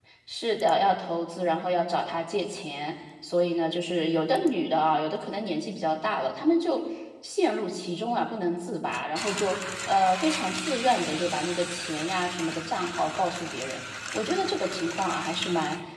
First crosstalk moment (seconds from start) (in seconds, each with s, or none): none